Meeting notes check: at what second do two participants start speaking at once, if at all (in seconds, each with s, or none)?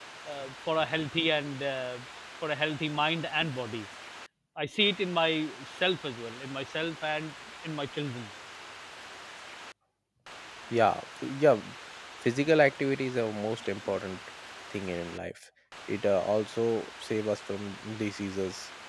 none